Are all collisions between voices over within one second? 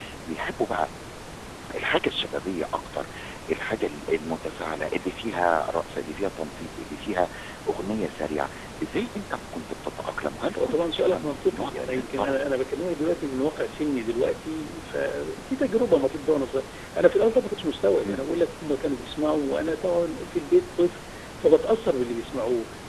No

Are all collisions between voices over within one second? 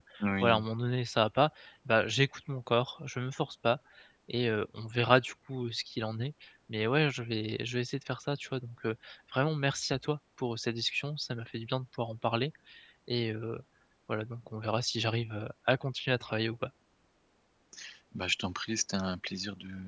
Yes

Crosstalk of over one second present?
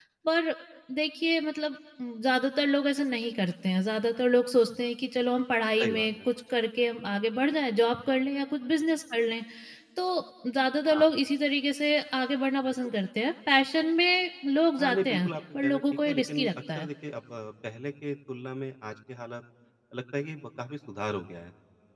Yes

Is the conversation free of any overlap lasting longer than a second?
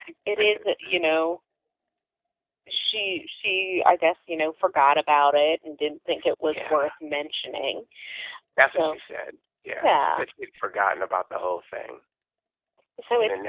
Yes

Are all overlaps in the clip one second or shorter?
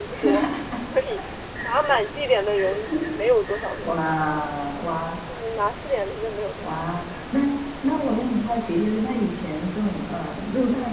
Yes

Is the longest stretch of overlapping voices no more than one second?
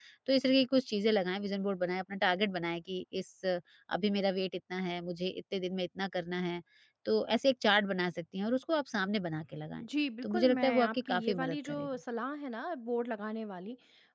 No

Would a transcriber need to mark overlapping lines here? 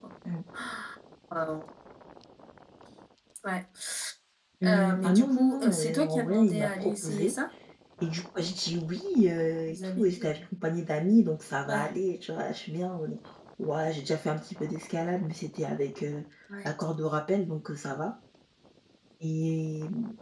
Yes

